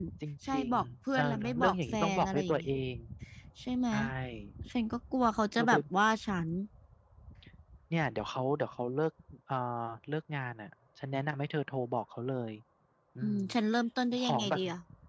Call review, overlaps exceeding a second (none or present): present